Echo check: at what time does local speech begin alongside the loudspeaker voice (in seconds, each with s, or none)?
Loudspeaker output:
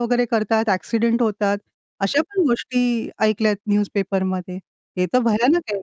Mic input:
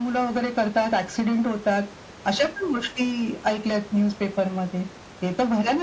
none